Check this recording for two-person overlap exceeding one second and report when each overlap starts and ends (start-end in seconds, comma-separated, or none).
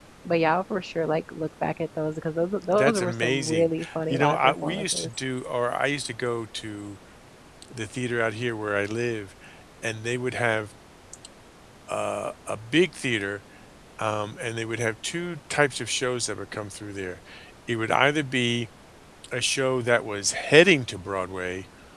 2.7-5.1